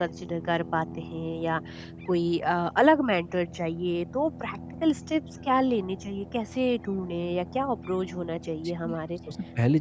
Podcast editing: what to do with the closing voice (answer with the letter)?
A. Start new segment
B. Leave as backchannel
A